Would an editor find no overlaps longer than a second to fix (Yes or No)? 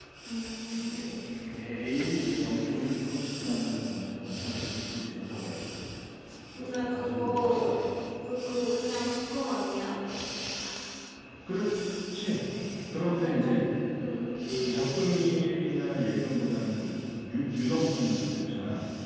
No